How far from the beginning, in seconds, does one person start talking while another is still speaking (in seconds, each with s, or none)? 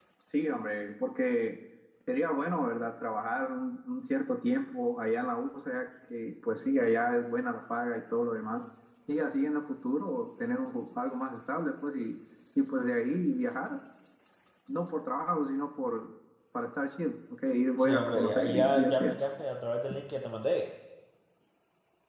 17.8 s